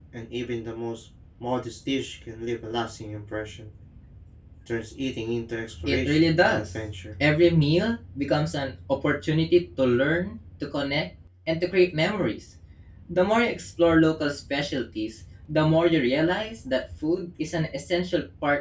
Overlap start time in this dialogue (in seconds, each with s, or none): 5.7 s